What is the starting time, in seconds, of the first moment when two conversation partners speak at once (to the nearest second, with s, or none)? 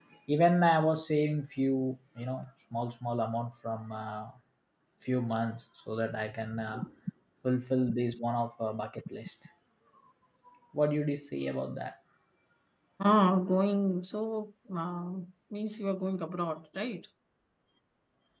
none